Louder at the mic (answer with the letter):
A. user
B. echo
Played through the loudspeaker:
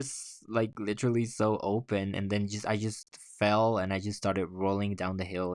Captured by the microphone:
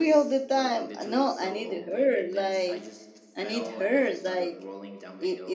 A